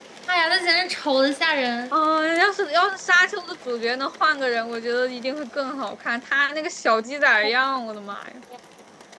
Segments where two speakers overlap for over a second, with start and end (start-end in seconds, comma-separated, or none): none